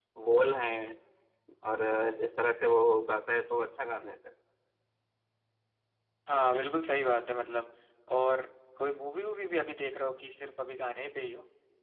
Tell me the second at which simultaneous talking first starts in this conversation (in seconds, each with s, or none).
none